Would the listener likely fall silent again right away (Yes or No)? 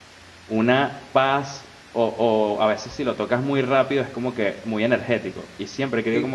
Yes